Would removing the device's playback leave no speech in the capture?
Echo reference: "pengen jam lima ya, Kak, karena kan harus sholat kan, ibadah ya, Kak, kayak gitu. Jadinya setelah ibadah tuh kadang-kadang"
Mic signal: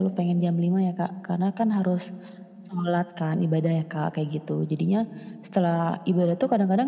Yes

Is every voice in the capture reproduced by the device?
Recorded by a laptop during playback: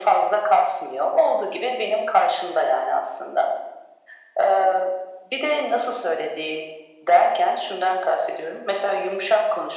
Yes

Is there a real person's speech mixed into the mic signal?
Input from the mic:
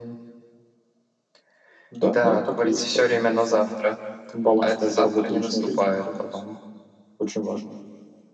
No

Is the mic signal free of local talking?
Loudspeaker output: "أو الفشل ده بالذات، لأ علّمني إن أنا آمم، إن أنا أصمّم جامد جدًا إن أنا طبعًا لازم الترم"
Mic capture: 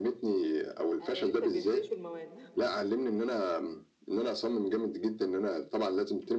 No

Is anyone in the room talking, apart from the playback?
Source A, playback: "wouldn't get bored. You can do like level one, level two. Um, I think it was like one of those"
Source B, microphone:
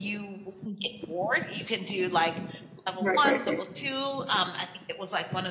Yes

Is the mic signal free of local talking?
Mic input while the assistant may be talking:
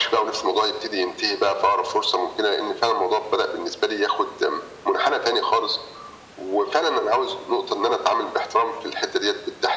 Yes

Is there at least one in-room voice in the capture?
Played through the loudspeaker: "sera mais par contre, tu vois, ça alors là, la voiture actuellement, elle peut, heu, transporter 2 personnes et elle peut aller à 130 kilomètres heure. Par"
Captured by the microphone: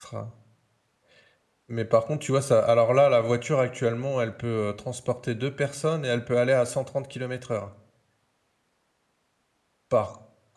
No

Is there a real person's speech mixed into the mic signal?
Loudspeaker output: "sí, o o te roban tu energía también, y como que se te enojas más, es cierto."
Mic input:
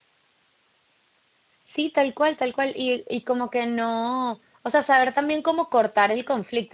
Yes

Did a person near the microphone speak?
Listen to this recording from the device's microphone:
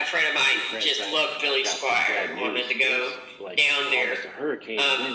Yes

